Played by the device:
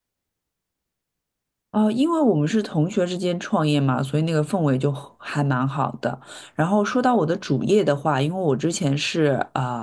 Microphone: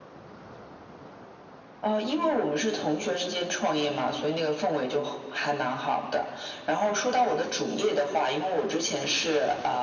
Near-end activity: none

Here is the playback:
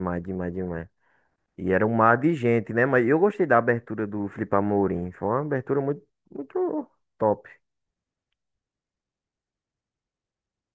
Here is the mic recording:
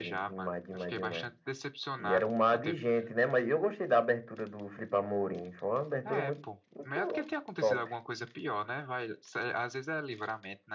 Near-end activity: present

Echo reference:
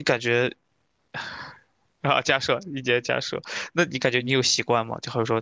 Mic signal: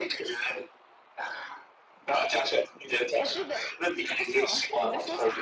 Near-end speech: present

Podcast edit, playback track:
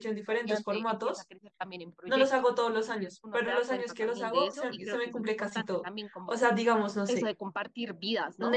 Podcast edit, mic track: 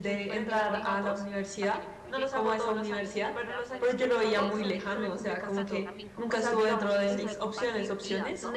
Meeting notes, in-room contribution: present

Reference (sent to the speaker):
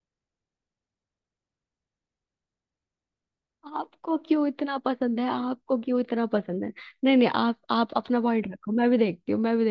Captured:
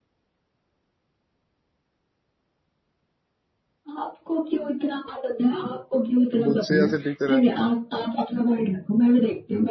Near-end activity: present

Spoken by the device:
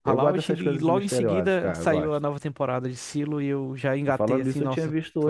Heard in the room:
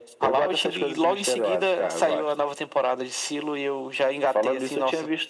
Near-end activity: none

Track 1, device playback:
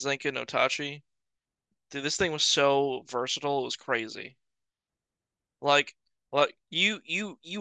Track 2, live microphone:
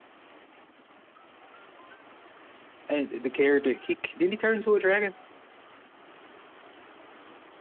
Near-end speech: present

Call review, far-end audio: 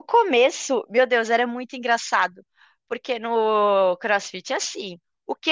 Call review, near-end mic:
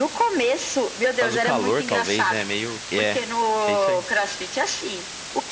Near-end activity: present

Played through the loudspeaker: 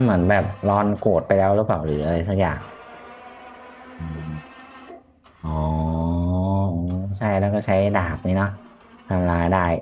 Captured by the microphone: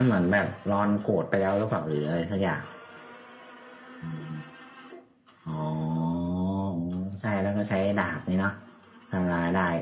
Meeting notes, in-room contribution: none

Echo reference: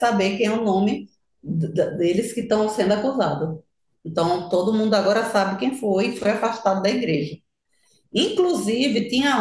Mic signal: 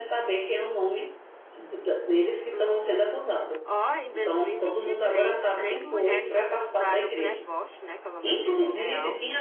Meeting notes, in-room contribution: present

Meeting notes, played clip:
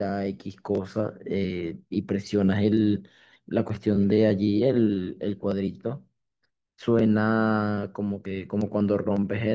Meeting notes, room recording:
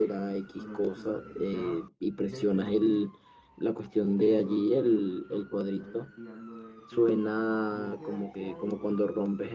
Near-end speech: present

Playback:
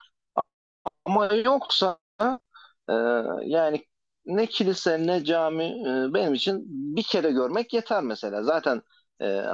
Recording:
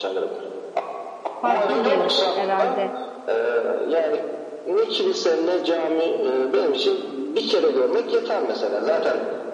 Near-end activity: present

